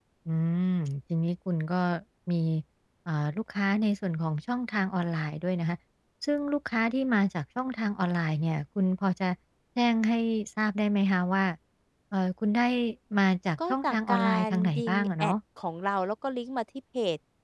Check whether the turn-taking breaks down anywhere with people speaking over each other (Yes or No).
Yes